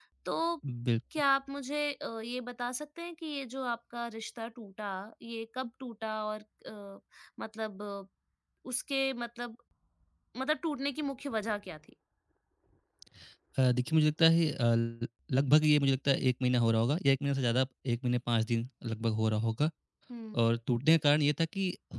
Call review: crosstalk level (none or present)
none